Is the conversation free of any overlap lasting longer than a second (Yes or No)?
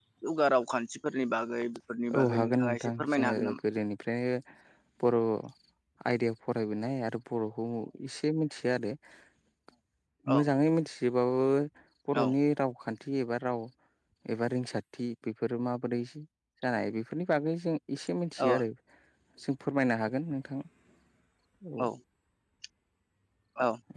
No